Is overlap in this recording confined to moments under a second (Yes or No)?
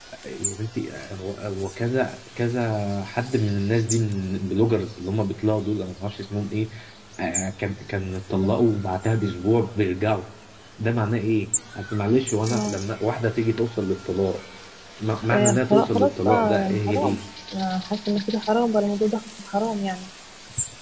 No